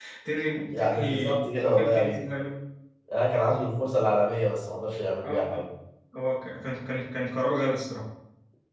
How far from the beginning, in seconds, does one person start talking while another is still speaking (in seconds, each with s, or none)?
0.8 s